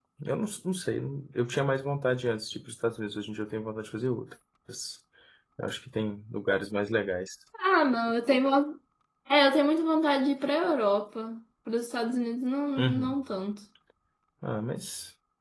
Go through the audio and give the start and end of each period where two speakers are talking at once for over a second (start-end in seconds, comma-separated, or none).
none